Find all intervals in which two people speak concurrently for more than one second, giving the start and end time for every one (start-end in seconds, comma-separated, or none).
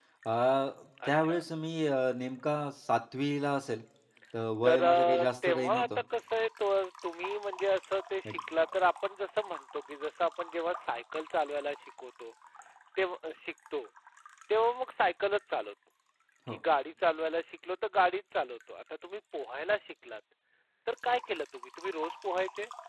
4.6-5.9